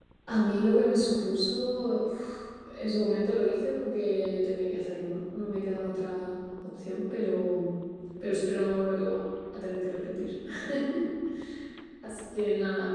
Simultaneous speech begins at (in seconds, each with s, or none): none